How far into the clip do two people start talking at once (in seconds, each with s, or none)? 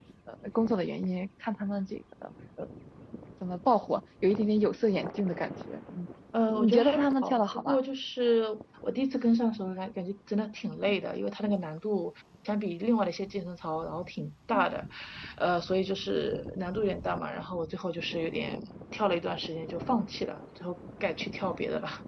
6.5 s